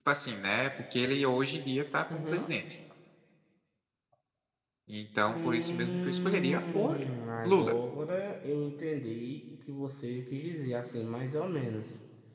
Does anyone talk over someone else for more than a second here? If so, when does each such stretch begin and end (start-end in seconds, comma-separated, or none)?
5.3-7.0